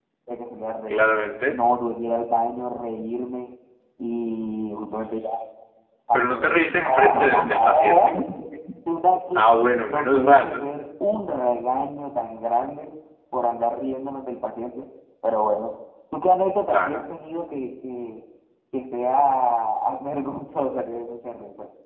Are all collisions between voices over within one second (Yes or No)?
No